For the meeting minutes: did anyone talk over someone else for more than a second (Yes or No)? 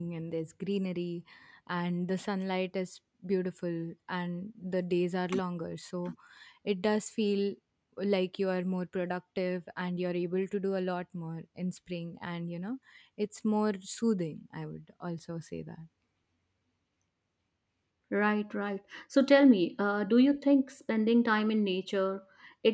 No